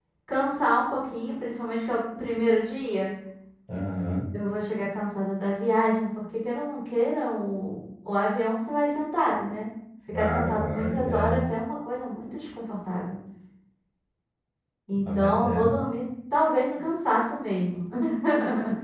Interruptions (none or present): present